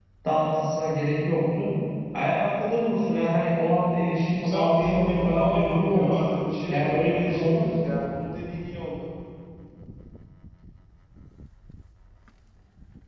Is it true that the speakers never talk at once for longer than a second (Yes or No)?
No